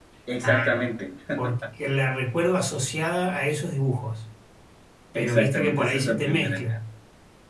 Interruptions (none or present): present